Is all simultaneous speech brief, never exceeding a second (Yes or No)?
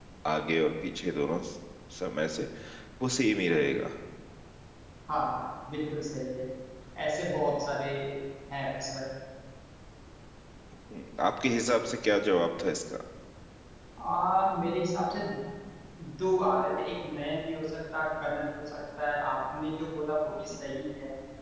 Yes